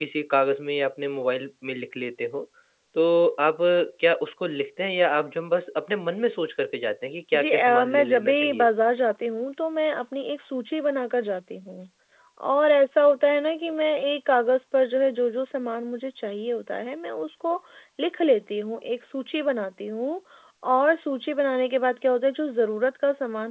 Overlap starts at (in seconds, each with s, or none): 7.3 s